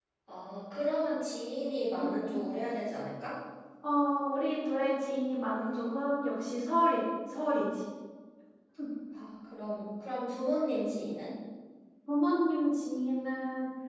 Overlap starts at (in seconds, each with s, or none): none